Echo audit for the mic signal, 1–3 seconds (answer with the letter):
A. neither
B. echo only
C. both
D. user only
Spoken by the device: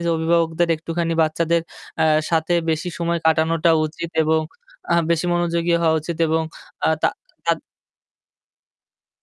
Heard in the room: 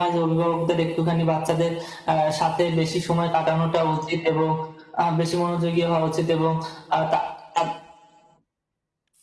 B